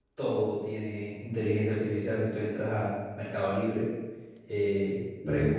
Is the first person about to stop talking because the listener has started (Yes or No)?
No